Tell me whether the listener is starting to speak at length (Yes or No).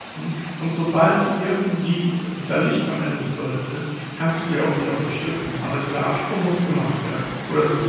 Yes